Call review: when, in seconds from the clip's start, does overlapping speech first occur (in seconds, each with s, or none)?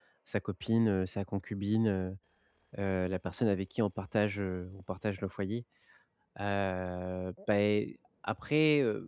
none